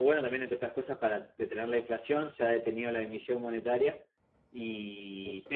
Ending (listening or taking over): listening